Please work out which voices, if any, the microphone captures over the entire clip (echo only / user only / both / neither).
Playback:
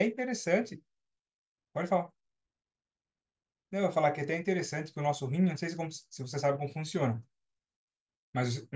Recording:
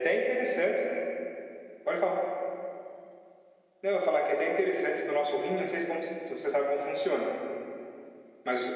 echo only